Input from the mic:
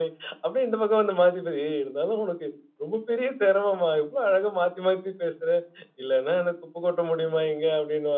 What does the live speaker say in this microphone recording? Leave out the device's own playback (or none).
none